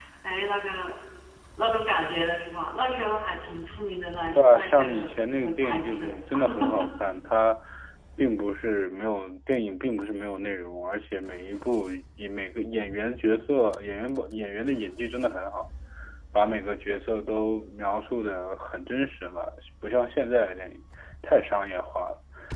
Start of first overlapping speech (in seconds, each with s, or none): 4.3 s